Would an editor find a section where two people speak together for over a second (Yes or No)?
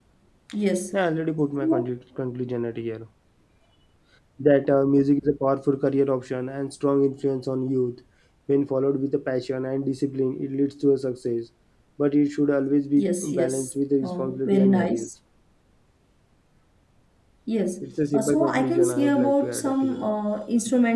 Yes